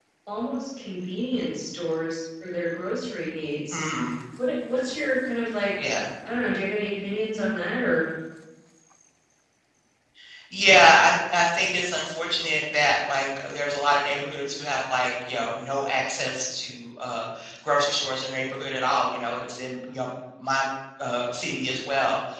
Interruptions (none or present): none